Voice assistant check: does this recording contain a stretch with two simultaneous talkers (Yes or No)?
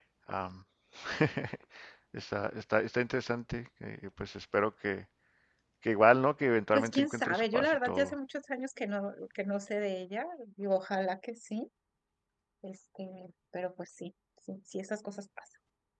Yes